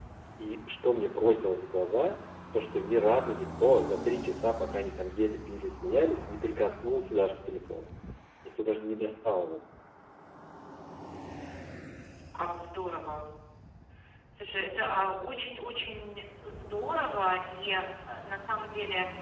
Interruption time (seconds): none

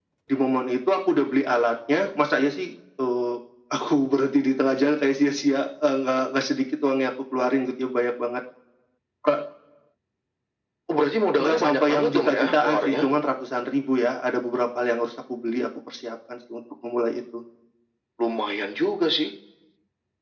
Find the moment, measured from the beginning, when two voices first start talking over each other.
11 s

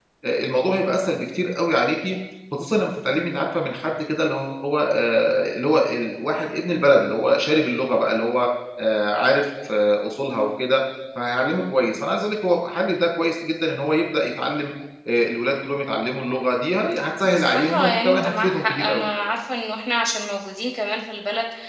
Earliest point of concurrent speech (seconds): 17 s

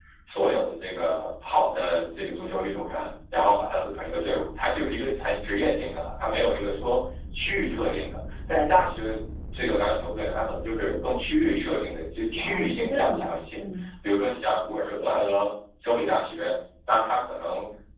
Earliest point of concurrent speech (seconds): 12 s

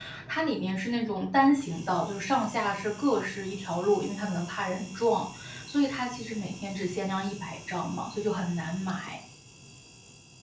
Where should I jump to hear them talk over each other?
none

